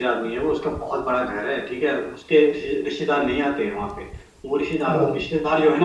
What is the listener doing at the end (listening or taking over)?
listening